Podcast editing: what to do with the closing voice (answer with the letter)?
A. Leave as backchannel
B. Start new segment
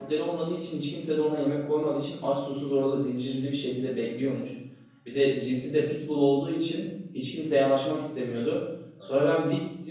A